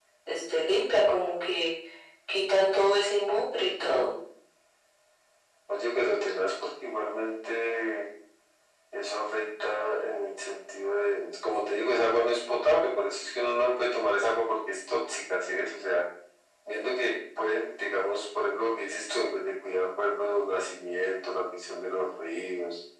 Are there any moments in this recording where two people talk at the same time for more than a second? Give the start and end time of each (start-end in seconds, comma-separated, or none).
none